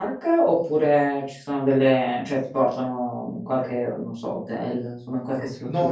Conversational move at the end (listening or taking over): taking over